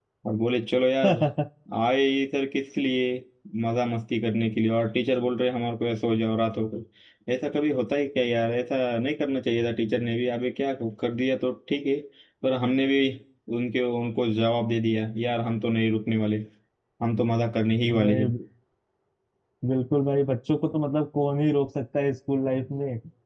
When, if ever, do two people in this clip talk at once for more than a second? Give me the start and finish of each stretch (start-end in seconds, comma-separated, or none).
none